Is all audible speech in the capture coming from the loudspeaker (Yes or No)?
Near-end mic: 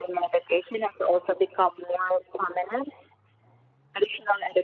Yes